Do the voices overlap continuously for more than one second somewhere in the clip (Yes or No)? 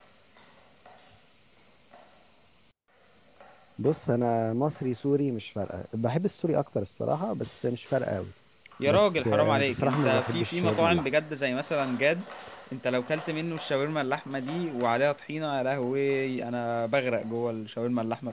Yes